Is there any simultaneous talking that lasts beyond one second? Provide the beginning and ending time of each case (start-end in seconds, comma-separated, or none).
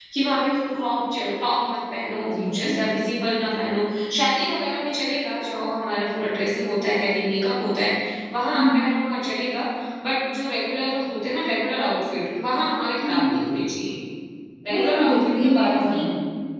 14.7-16.1